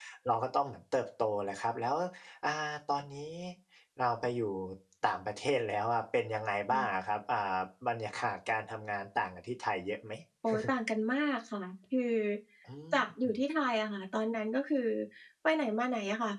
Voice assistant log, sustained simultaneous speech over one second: none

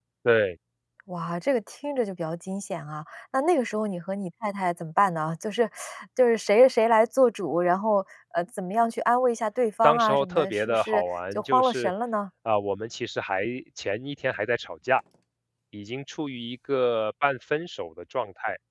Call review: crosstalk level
present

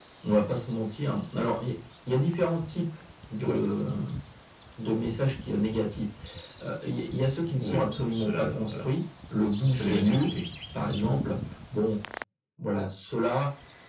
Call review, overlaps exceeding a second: present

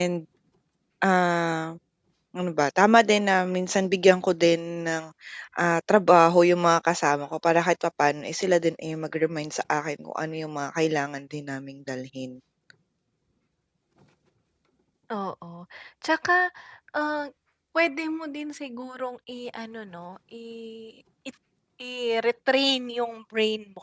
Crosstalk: none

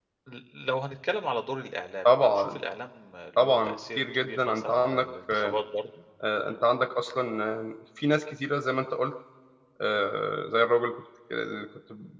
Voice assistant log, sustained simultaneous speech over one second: present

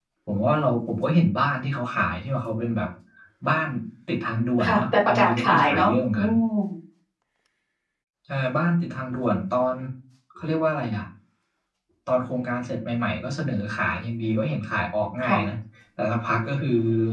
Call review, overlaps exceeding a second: present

